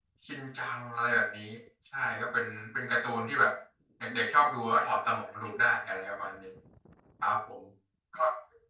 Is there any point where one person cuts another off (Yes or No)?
No